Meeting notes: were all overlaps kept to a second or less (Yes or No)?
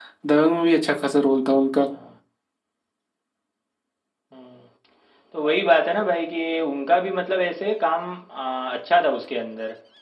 Yes